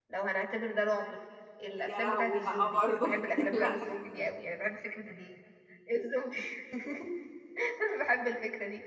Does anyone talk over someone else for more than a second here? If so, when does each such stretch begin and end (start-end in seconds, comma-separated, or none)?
1.8-3.9